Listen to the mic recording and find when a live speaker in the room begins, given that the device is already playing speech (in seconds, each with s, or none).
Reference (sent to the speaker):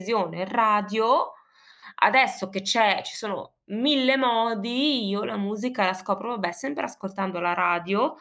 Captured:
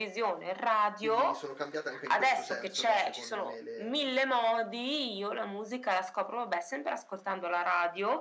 1.0 s